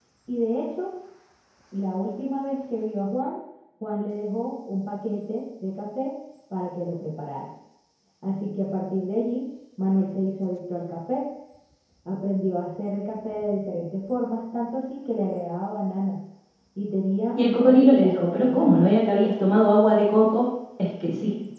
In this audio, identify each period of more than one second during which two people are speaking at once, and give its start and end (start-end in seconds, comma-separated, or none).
17.4-18.8